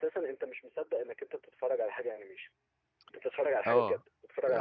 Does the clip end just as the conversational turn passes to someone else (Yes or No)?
Yes